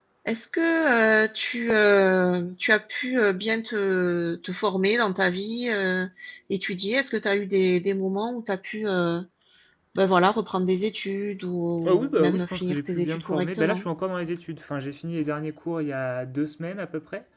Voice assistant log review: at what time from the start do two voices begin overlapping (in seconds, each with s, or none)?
11.8 s